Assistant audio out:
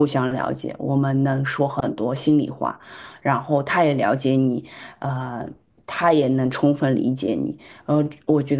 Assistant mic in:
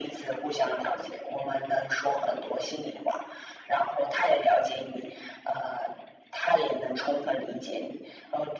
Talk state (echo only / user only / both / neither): echo only